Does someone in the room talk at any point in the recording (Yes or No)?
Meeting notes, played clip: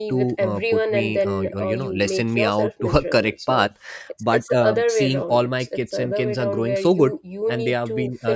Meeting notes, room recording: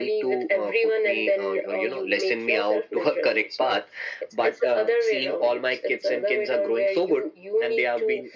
No